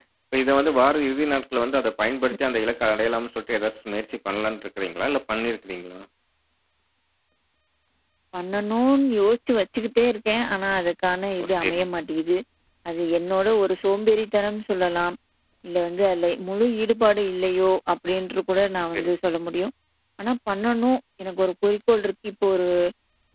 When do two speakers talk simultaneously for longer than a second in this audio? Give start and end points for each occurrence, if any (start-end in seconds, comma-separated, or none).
none